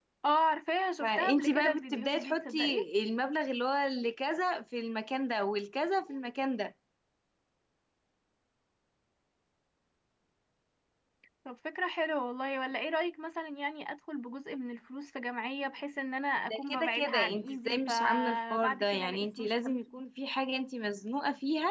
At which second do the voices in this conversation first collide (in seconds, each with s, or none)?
1.0 s